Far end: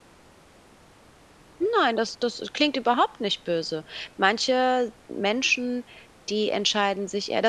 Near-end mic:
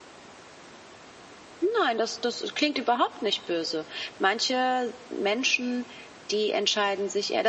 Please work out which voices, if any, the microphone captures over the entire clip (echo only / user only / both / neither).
echo only